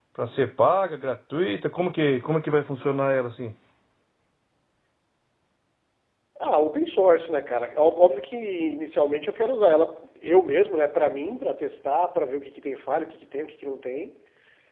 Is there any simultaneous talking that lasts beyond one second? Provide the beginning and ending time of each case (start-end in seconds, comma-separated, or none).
none